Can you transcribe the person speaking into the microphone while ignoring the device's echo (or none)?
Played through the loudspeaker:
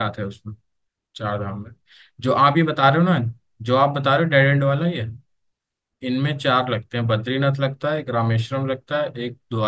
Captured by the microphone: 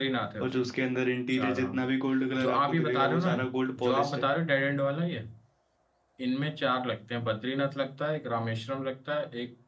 और जो उसके अंदर इंटीरियर जितना भी गोल्ड कलर आपको दिखेगा वो सारा गोल्ड पॉलिश्ड है